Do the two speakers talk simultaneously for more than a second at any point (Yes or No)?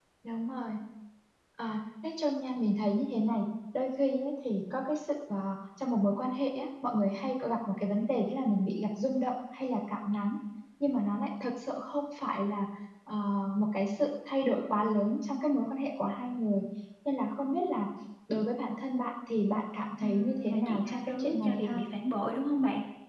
Yes